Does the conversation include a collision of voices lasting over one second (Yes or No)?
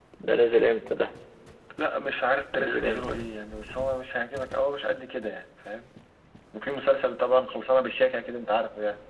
No